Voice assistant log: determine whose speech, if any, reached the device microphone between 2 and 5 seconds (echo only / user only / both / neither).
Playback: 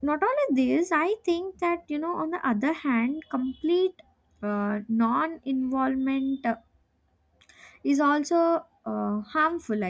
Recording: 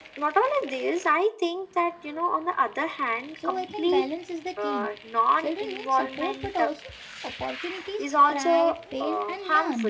both